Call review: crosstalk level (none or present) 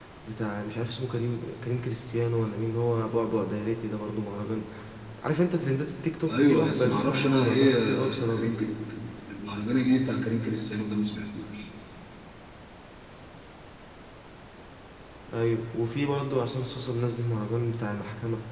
present